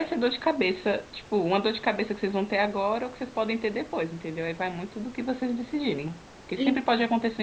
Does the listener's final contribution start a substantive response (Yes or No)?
No